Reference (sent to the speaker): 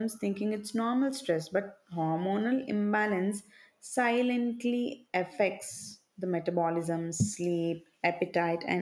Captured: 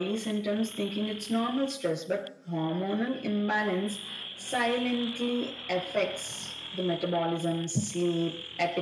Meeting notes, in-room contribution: none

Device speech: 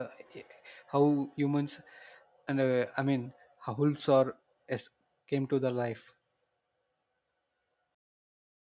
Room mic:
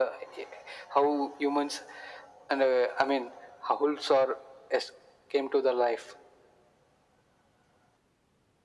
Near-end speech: none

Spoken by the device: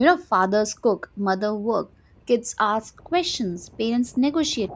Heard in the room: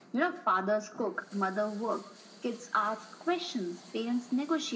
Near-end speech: none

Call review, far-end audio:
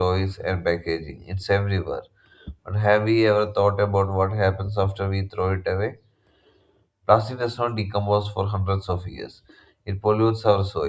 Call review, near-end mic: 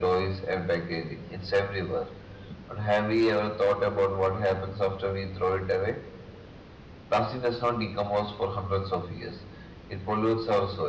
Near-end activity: none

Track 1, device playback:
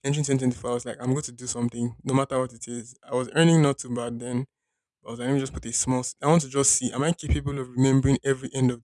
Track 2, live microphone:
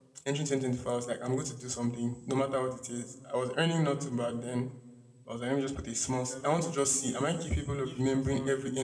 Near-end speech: present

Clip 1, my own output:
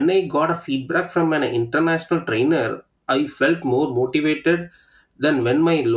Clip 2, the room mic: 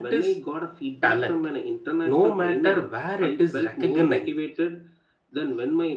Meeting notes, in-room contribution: present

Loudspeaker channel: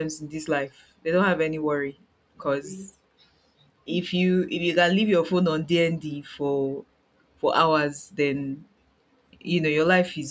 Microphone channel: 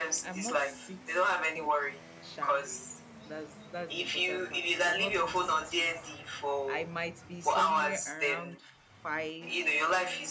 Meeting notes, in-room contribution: present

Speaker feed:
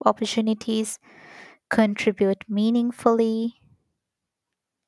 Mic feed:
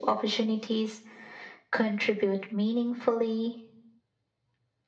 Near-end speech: none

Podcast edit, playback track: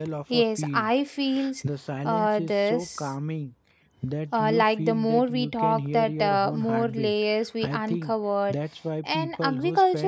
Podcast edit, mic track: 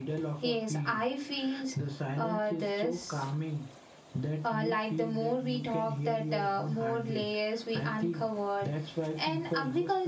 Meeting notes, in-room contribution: none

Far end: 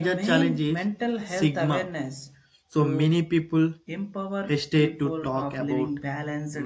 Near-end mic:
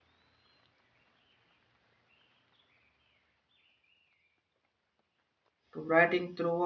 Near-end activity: present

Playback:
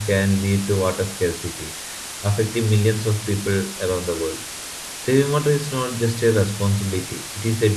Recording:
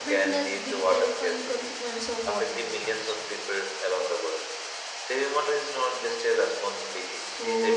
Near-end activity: present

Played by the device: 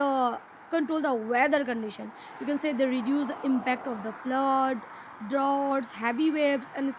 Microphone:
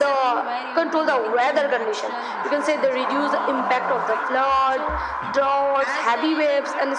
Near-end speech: present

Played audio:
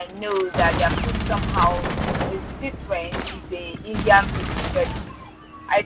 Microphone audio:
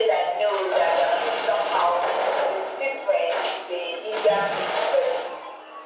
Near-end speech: none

